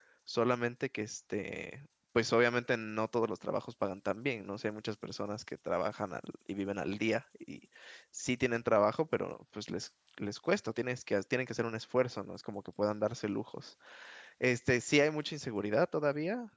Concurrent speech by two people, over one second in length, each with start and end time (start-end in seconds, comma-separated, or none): none